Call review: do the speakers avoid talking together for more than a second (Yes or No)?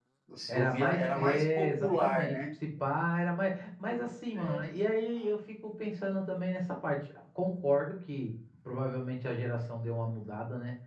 No